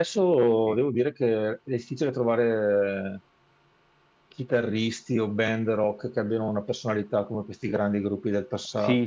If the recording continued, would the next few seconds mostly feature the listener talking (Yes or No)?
Yes